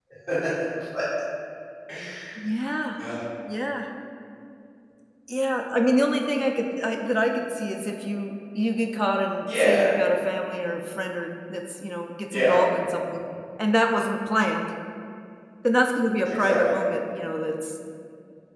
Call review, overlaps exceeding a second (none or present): none